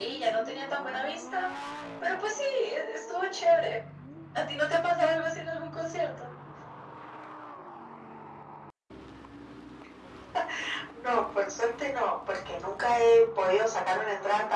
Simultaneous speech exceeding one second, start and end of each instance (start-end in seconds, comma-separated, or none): none